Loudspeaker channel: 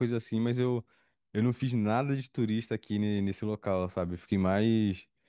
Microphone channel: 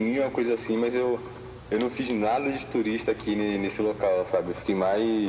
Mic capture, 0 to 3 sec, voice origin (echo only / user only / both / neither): echo only